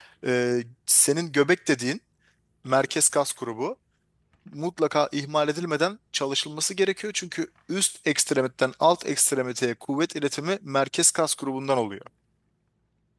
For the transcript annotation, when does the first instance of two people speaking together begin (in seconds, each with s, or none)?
none